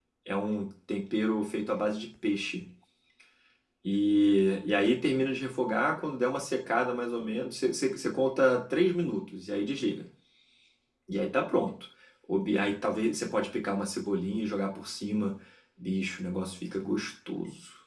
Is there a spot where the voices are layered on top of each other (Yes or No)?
No